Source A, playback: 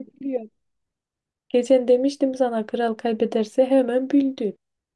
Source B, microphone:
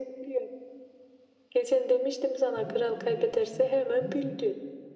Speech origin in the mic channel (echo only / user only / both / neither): both